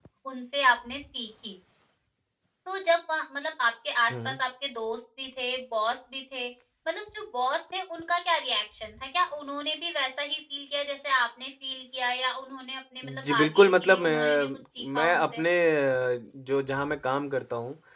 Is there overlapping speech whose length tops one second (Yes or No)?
Yes